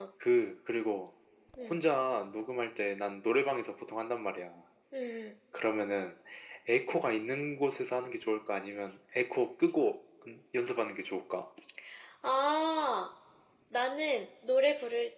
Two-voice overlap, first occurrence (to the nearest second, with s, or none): none